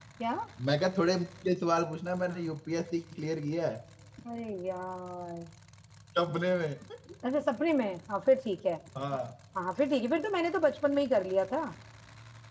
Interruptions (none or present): none